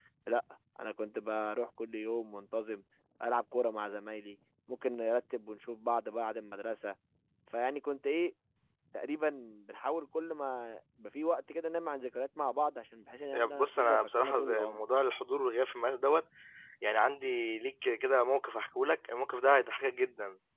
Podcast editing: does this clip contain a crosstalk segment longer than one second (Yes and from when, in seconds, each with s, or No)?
Yes, from 13.3 s